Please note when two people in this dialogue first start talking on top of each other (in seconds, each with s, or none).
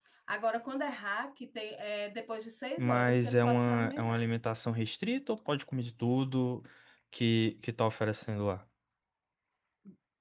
2.8 s